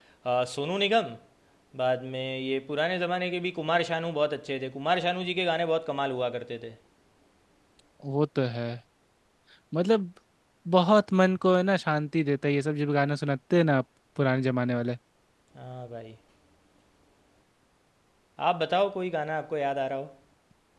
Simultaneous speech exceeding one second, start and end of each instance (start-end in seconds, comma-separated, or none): none